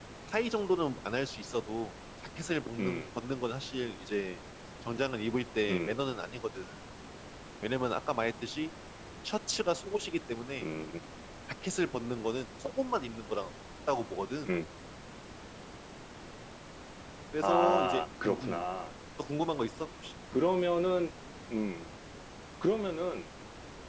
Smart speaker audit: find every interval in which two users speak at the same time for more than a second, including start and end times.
17.4-18.6

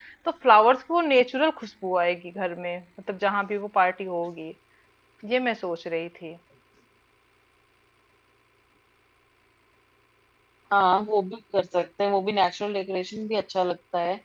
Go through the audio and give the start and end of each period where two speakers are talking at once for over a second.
none

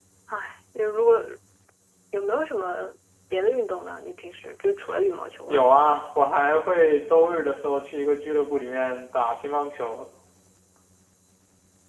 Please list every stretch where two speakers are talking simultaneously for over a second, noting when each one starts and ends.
none

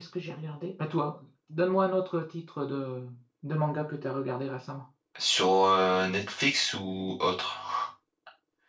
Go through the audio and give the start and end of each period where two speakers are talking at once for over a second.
none

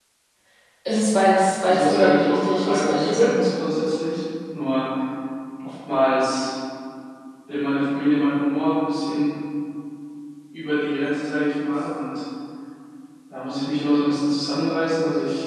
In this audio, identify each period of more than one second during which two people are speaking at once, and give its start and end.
1.6-3.3

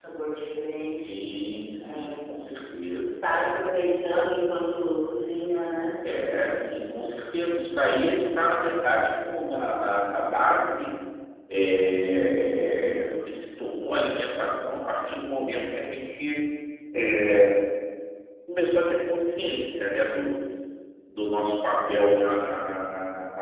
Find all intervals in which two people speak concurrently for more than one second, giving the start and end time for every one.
none

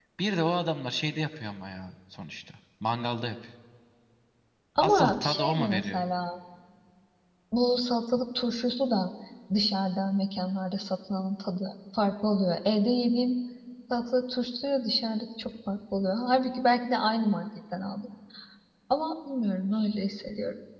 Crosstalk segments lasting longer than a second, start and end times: 4.8-6.0

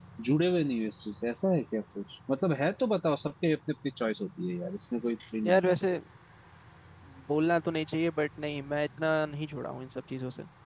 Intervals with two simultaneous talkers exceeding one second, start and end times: none

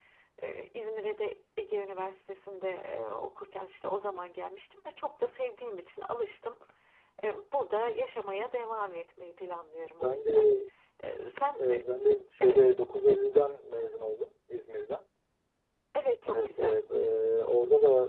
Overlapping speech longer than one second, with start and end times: none

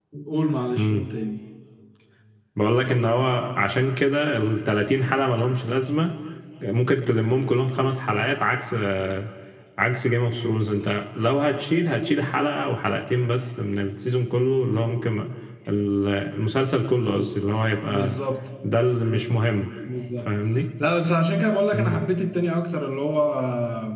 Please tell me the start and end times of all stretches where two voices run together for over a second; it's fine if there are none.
none

